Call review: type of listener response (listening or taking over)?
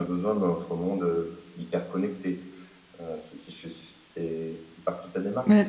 taking over